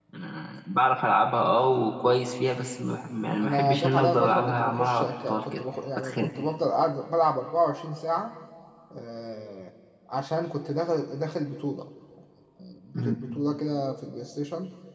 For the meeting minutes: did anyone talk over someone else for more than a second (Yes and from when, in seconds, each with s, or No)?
Yes, from 3.4 s